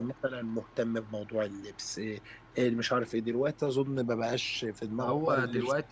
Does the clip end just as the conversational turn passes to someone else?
Yes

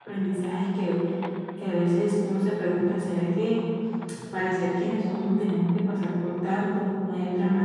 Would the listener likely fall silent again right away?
No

